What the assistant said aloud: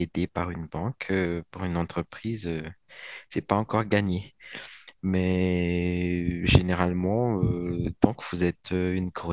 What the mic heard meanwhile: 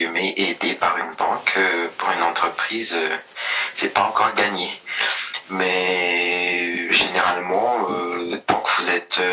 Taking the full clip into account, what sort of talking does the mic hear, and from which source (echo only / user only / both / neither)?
echo only